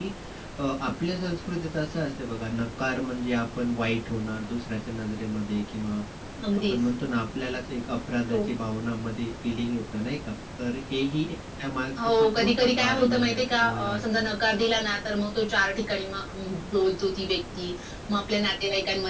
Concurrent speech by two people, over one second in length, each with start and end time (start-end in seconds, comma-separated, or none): 12.0-14.3